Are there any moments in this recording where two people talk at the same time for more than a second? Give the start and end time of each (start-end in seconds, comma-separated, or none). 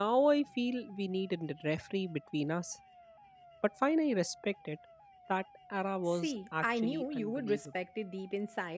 6.1-7.6